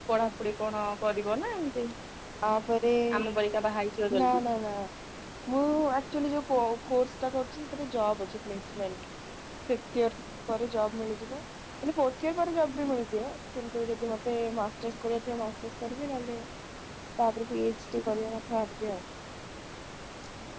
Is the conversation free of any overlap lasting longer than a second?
Yes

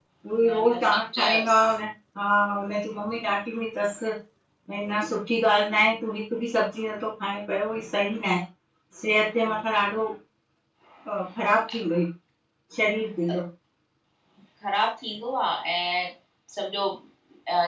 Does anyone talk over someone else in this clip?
Yes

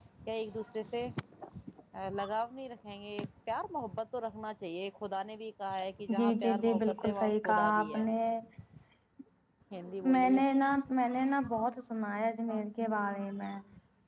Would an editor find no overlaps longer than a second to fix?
No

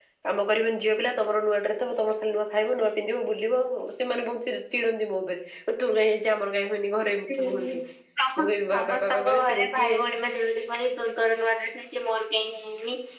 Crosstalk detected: Yes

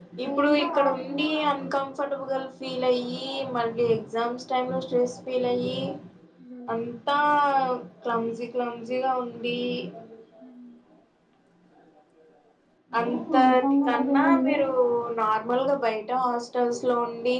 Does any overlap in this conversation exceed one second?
Yes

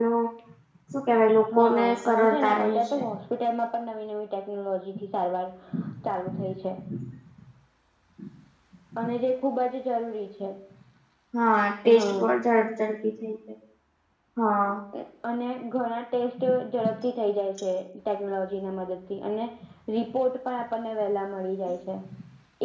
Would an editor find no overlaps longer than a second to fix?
No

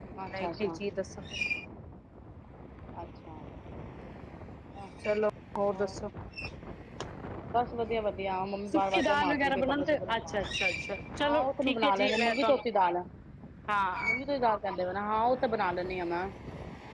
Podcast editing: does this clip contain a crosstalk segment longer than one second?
Yes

